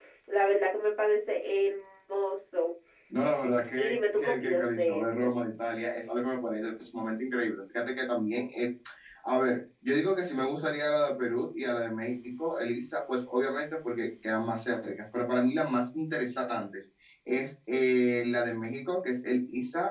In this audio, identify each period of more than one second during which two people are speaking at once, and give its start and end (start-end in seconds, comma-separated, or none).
3.8-5.0